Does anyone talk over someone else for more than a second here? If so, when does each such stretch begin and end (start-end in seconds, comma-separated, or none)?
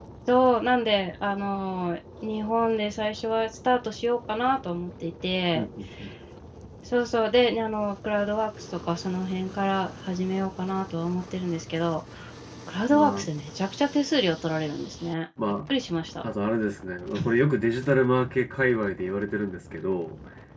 none